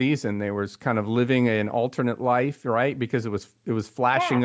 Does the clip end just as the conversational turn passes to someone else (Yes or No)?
No